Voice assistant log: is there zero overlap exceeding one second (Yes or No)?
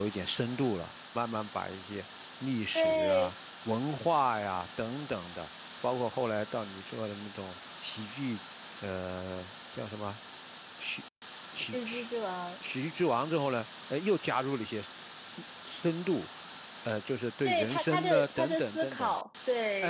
No